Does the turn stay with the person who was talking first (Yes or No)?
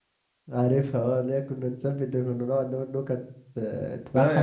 No